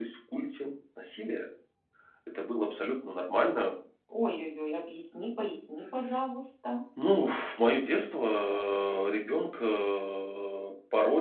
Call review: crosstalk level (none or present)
none